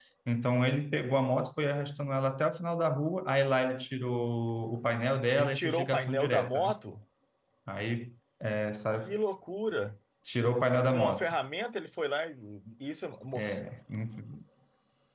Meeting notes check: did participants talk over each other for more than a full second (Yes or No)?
Yes